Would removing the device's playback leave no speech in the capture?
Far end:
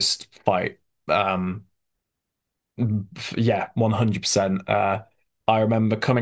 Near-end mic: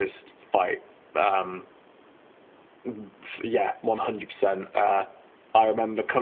Yes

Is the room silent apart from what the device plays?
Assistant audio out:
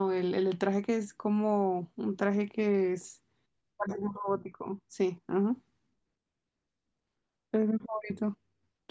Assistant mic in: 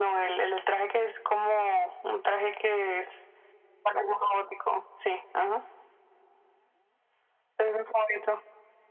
Yes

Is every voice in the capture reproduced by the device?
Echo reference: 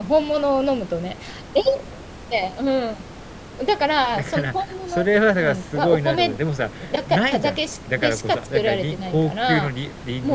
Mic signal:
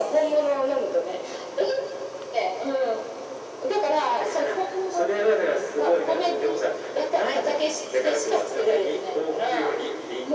Yes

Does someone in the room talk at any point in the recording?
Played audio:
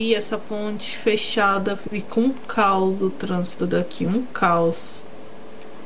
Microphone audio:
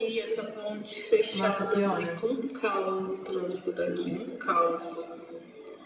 Yes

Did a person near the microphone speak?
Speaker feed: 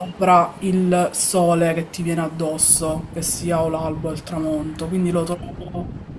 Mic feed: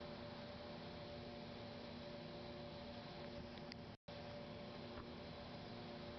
No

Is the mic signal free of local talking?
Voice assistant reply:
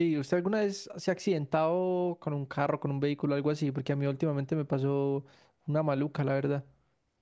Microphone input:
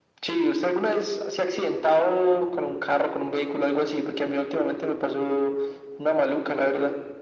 Yes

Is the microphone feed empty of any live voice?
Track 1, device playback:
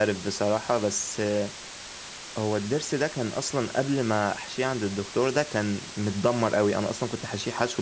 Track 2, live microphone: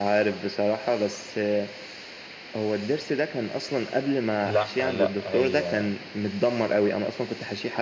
No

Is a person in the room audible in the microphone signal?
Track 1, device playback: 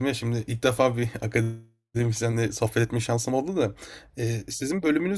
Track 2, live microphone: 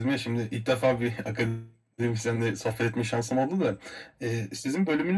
No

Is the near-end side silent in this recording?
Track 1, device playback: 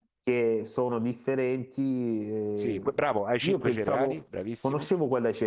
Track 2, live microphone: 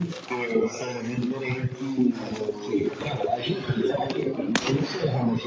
Yes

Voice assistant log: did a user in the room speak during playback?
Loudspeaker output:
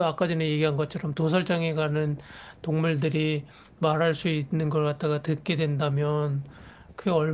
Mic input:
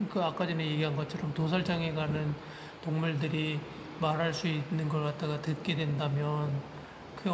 No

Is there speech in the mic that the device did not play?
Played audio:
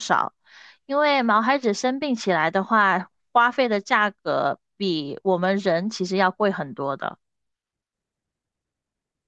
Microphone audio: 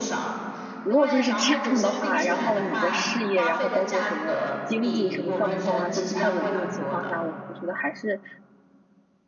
Yes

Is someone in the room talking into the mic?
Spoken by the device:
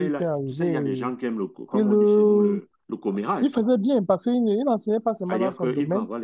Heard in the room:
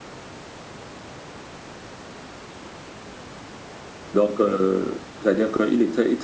Yes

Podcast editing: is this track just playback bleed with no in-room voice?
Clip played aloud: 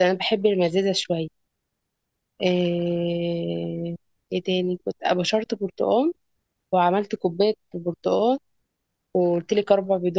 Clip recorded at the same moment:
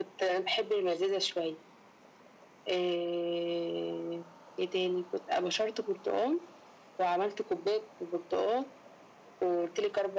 Yes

